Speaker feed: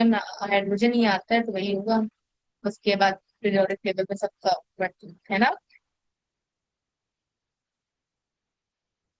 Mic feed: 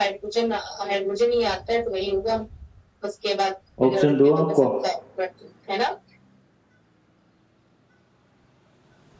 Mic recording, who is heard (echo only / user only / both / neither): both